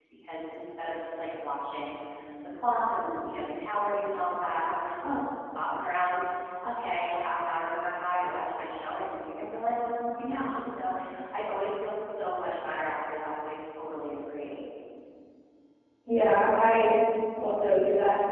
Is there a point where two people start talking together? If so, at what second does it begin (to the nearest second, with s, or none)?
none